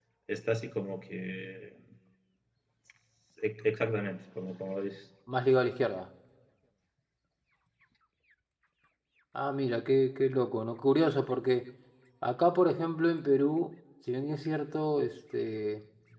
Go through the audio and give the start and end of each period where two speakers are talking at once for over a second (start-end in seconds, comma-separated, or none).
none